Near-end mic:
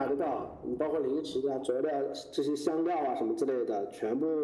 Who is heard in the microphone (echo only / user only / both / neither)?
echo only